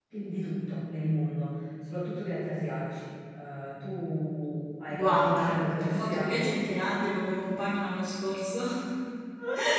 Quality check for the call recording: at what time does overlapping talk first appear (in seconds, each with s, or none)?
4.9 s